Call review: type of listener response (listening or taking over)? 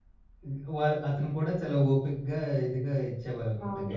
taking over